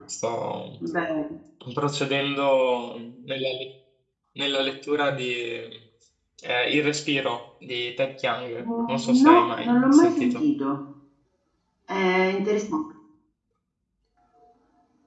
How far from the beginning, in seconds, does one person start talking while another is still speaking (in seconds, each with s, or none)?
8.6 s